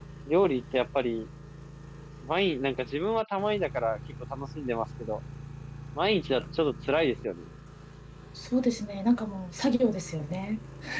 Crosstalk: none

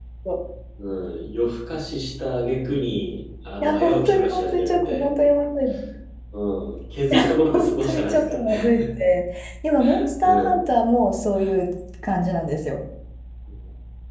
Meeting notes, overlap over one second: present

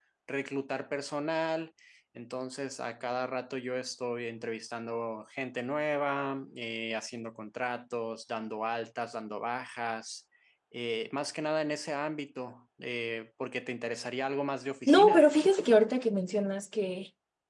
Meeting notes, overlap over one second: none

